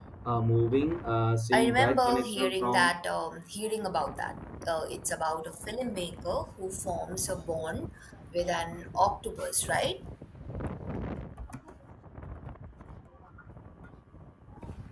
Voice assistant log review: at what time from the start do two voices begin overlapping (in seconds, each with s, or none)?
1.5 s